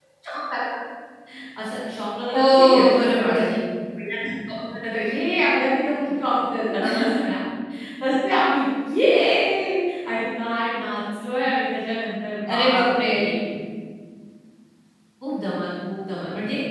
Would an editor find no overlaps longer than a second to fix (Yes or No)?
No